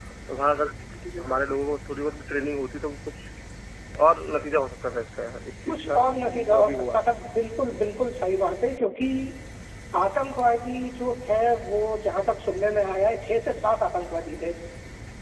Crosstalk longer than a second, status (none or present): present